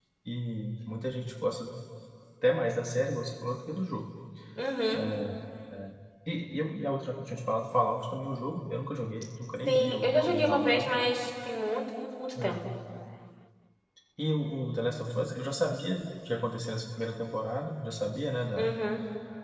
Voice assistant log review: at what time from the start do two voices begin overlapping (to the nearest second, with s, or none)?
10 s